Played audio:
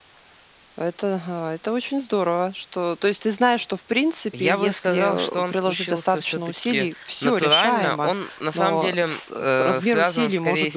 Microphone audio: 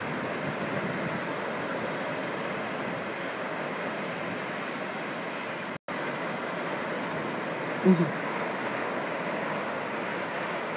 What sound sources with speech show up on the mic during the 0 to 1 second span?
neither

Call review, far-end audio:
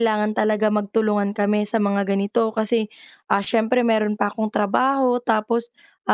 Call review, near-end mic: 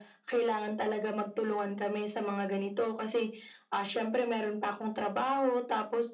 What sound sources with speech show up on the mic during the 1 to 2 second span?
echo only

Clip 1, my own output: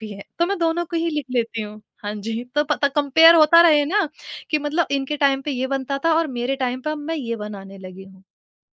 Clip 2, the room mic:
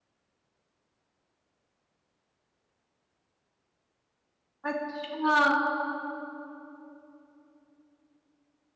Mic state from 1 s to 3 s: neither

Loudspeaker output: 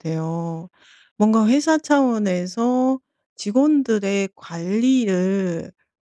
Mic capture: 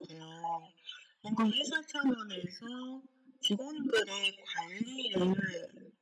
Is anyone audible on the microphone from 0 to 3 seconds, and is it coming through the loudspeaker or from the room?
echo only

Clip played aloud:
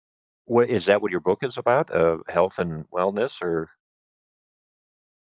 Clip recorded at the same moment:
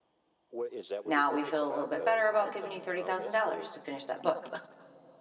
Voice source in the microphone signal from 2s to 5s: both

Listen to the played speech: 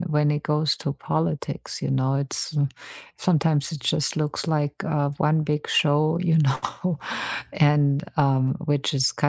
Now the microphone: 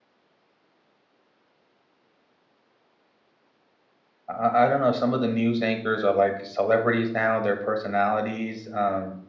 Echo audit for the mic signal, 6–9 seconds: user only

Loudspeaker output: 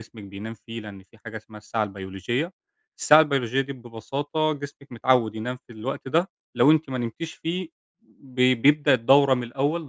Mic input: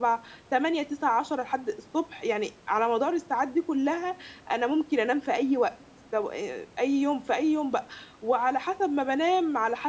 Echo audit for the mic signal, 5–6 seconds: user only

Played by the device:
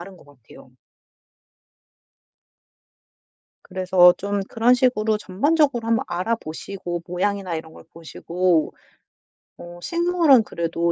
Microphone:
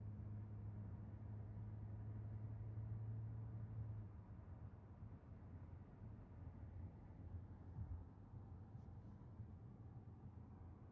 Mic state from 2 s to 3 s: neither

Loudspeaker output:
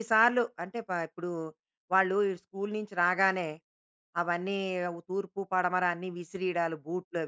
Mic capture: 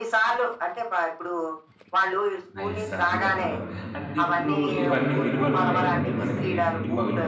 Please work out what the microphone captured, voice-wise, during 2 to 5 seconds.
both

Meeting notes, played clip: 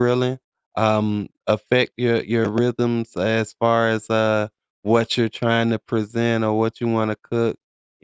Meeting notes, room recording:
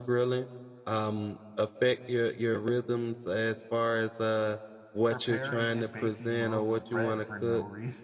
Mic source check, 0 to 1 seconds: echo only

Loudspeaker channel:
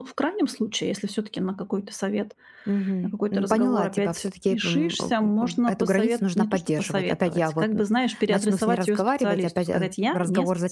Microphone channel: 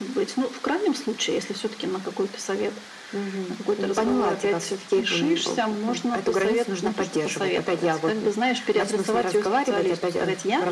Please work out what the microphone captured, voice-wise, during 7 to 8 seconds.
echo only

